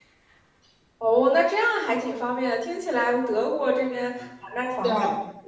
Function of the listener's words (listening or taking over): listening